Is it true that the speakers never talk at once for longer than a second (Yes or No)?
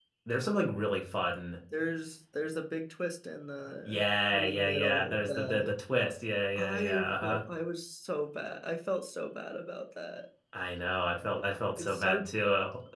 No